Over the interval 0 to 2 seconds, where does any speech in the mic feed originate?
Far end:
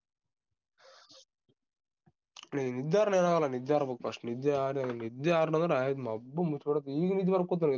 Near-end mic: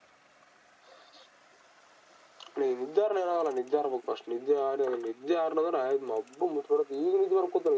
neither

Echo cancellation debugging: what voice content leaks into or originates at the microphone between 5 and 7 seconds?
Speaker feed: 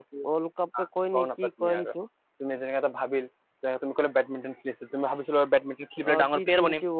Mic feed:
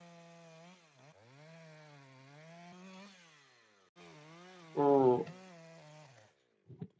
user only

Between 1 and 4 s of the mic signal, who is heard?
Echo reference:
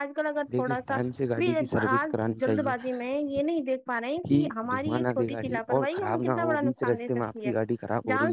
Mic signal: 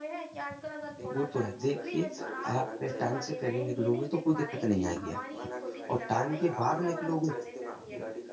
both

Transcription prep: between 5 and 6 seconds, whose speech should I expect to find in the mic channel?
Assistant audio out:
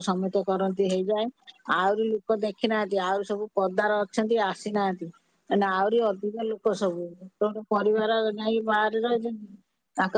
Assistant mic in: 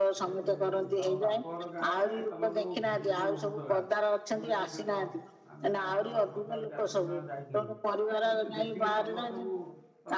both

